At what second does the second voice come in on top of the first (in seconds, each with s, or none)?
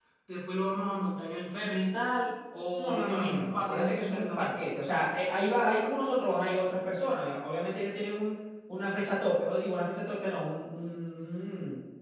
2.8 s